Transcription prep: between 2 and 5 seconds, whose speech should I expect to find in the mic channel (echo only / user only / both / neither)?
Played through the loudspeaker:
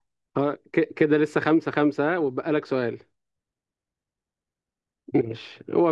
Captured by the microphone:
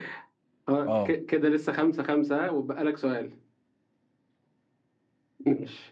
echo only